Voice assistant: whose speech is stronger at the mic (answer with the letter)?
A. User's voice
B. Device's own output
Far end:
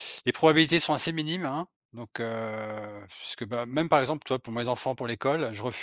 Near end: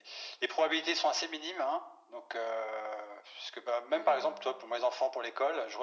B